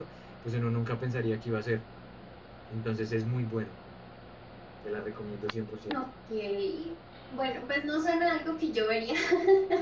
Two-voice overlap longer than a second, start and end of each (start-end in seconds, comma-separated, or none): none